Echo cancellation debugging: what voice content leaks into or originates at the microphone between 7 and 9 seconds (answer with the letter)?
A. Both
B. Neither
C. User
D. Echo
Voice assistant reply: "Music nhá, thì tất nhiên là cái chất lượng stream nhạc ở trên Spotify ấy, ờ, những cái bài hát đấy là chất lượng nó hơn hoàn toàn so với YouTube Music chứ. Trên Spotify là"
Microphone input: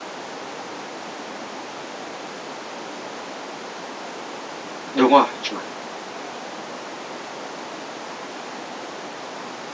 B